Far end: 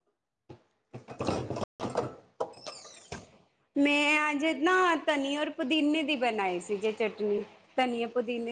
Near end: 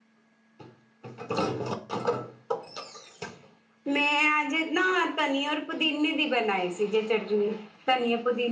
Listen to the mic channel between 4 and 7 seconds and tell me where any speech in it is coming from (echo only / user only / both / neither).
echo only